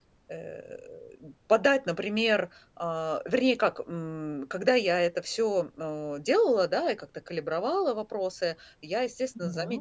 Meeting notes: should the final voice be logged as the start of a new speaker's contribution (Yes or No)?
No